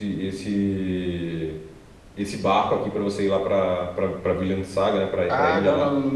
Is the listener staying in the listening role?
No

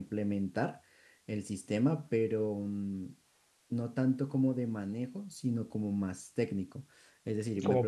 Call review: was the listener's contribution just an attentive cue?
No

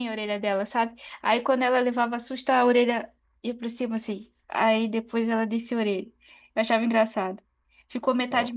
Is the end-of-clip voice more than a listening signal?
No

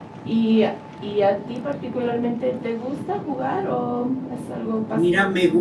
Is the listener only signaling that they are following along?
No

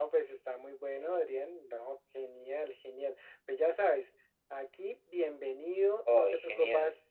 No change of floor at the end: Yes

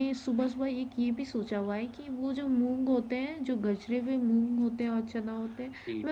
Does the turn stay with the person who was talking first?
Yes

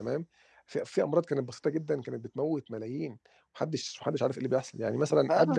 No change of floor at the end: No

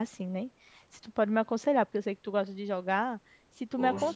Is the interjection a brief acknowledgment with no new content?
Yes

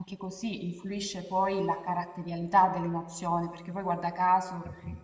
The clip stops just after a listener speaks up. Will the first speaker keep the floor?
Yes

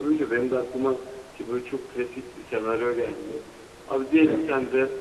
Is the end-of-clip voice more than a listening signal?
No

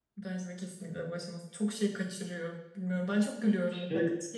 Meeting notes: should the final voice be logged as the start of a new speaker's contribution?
No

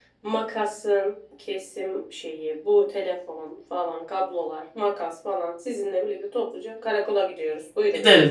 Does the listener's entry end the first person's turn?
Yes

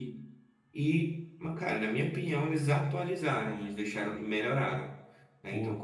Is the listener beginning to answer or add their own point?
No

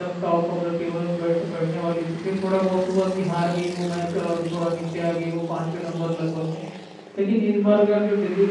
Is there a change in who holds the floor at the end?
No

